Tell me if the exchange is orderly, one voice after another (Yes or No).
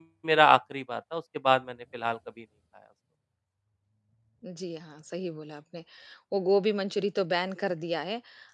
Yes